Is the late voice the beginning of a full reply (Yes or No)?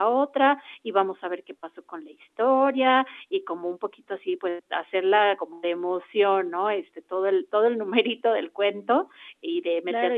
Yes